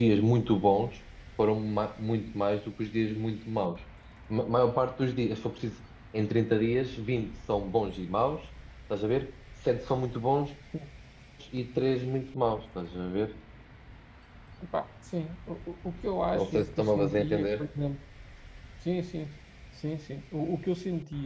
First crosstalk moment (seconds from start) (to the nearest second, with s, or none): 16 s